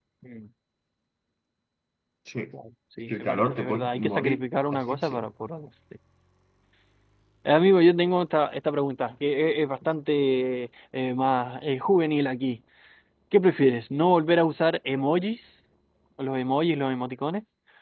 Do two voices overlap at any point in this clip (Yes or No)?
Yes